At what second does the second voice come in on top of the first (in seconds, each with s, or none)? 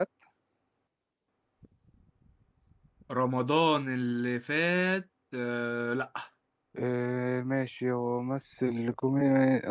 none